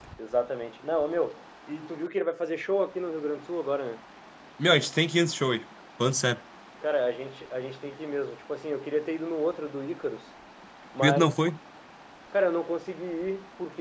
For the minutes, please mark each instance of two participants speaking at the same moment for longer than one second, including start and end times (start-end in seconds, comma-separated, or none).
none